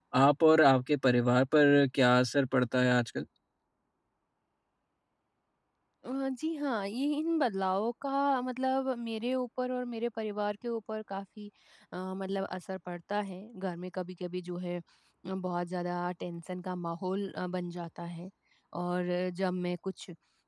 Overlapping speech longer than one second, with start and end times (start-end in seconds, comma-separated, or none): none